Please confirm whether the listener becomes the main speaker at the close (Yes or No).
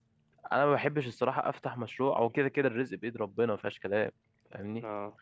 No